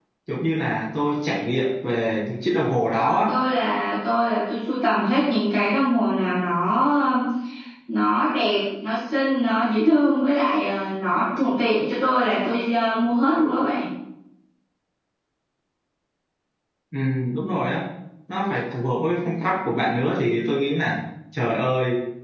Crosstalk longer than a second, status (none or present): none